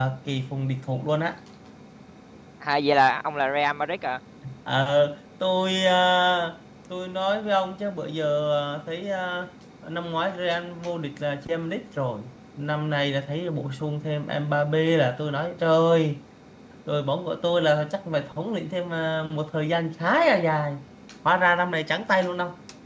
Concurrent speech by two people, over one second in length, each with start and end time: none

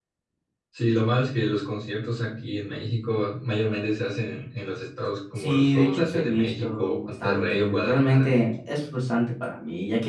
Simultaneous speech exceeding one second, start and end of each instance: 5.4-8.3

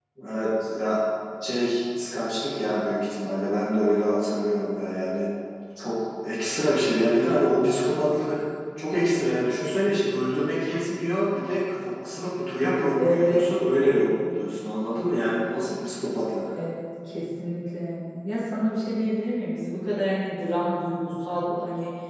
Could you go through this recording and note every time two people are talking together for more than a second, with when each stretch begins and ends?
none

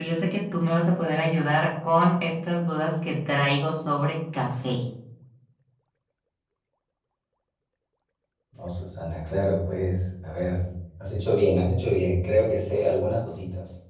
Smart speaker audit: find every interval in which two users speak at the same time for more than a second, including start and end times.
none

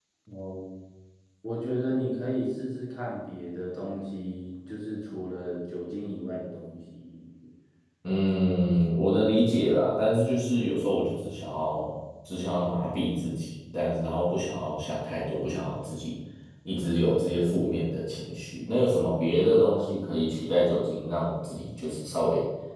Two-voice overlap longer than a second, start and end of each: none

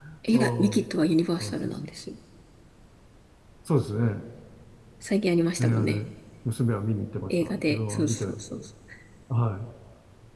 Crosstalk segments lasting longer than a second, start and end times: 7.3-8.6

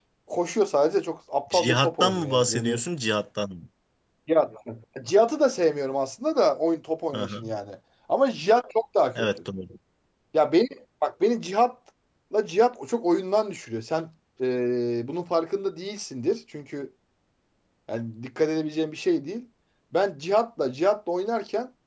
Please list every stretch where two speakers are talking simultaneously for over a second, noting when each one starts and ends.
1.5-2.8

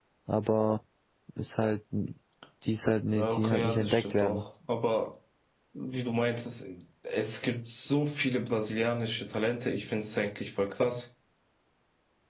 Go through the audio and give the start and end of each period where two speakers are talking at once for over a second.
3.0-4.4

